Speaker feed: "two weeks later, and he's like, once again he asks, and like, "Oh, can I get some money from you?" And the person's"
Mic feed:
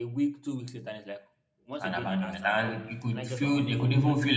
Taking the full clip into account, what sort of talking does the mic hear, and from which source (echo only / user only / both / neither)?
both